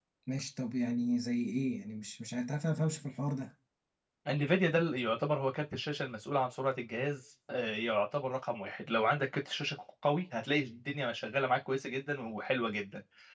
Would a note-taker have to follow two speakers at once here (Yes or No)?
No